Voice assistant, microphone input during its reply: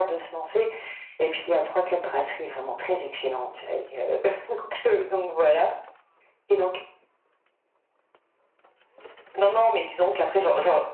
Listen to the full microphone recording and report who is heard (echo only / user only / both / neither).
echo only